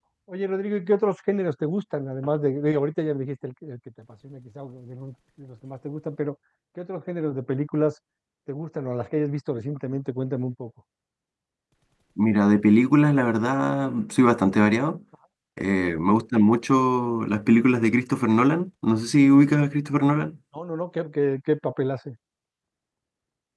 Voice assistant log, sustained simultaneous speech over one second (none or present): none